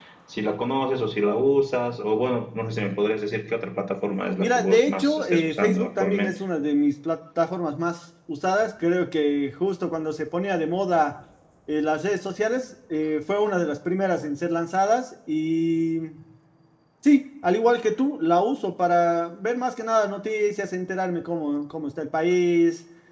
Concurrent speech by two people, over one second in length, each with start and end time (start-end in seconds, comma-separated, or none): 4.4-6.4